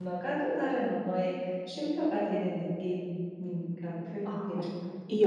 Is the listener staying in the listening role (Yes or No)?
No